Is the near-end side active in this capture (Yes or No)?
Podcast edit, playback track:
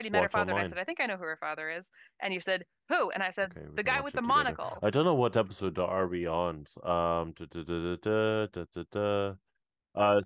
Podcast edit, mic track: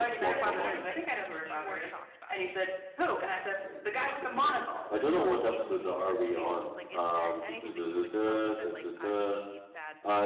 Yes